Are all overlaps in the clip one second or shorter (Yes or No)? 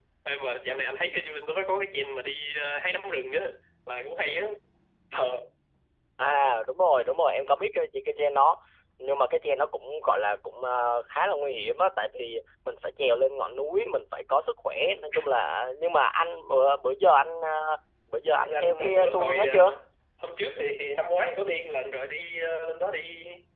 No